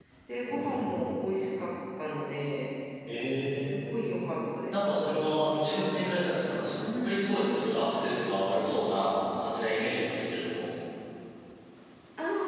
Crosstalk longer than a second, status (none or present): present